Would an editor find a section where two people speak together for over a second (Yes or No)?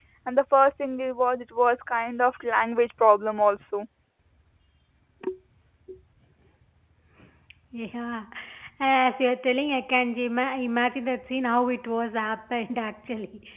No